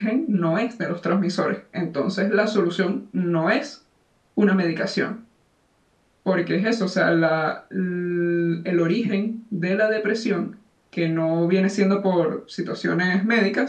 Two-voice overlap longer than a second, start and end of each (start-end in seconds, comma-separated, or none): none